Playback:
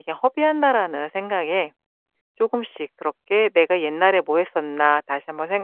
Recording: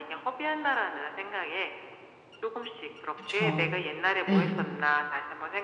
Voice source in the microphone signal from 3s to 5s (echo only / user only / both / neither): both